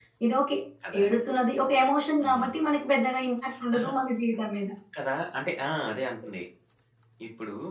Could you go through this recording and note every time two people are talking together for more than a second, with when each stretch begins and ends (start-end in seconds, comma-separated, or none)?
none